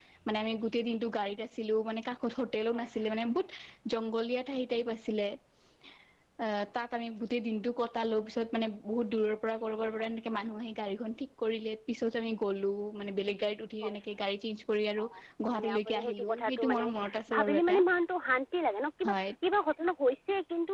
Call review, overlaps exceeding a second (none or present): present